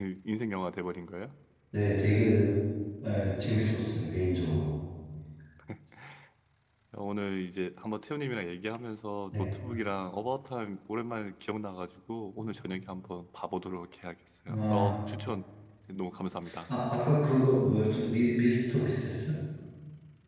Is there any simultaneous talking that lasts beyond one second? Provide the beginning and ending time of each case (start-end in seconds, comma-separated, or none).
none